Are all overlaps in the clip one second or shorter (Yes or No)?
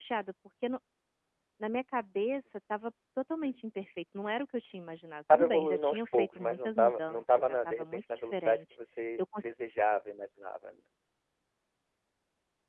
No